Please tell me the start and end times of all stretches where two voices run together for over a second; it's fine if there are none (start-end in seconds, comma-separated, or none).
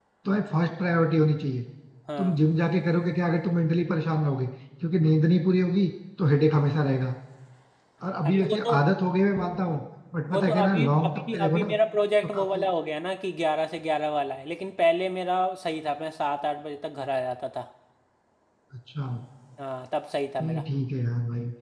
10.3-11.7